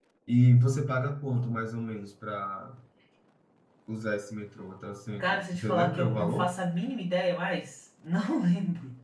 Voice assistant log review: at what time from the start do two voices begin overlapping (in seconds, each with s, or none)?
5.2 s